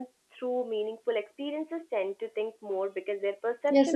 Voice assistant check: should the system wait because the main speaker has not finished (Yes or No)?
No